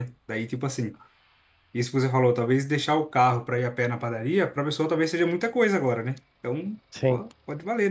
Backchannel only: Yes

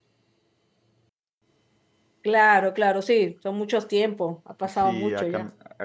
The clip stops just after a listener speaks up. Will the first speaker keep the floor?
No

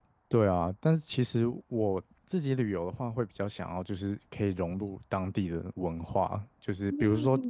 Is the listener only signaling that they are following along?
Yes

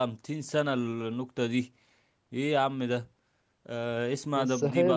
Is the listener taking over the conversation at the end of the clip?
No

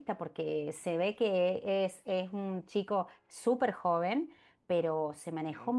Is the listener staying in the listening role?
Yes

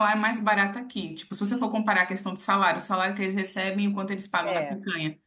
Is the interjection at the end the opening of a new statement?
No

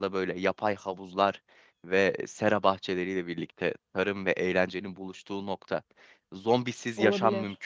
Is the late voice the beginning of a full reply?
No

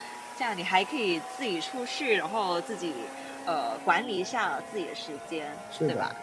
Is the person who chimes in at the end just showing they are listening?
No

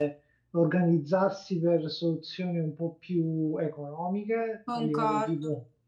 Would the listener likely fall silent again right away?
Yes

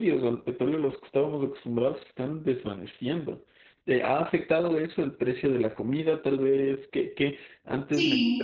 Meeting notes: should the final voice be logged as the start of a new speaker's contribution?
No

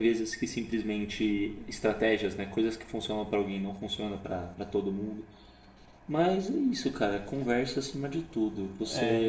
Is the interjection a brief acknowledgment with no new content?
No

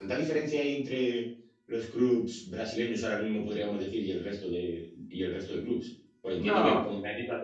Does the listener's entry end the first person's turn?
No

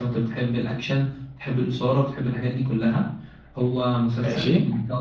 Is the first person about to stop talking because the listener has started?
No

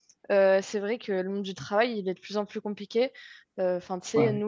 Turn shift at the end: No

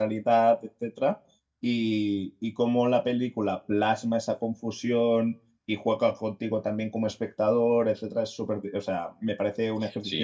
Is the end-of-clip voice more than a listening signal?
Yes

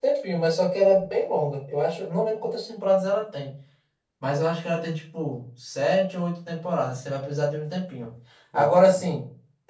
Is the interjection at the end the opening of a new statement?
No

